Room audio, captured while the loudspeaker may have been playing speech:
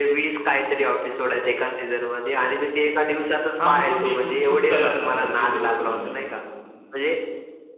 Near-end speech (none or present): present